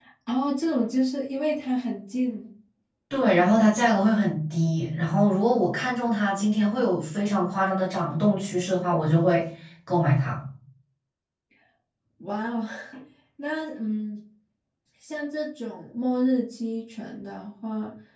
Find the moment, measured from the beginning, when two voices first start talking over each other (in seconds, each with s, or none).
none